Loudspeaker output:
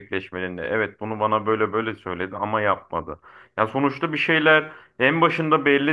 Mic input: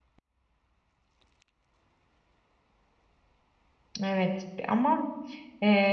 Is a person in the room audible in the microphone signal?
Yes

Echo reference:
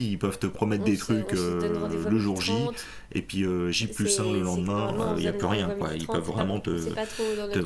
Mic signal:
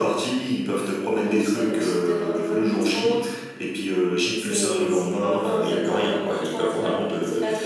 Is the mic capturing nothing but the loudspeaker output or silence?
Yes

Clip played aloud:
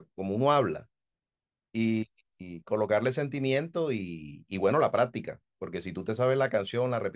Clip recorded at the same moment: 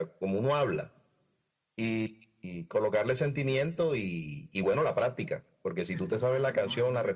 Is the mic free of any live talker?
No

